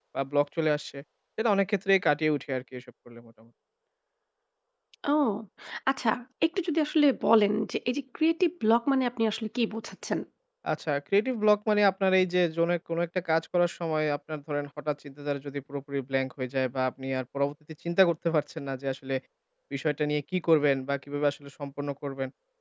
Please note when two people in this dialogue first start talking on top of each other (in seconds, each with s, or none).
none